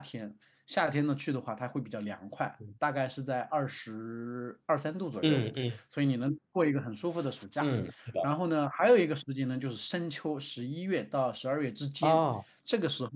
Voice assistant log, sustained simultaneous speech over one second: none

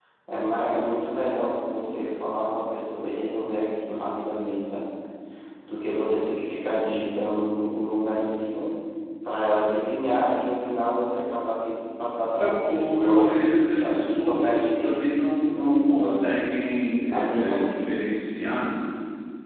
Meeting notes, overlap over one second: present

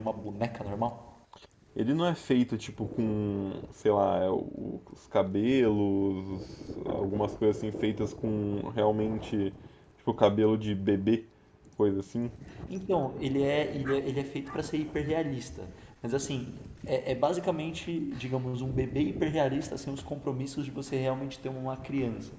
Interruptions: none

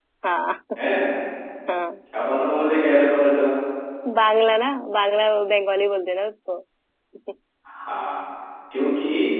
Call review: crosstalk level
none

